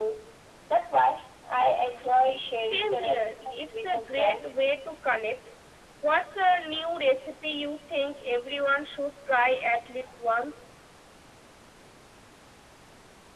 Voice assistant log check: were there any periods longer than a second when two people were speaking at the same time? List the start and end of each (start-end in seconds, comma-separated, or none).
2.6-4.8